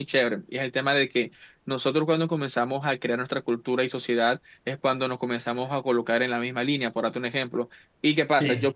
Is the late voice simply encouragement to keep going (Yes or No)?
Yes